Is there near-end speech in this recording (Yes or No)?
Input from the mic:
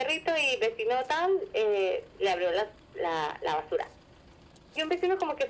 No